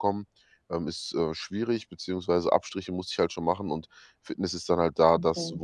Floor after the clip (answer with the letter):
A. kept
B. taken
A